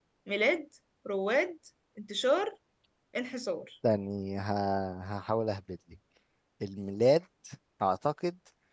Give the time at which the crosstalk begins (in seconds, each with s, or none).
none